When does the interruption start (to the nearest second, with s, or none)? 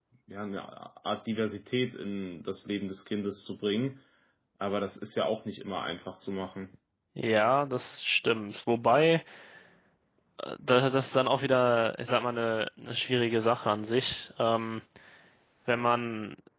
none